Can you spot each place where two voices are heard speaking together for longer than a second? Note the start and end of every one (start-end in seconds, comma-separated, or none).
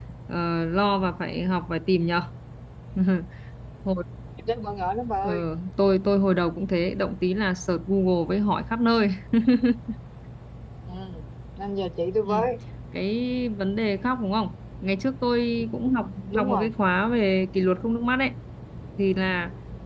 none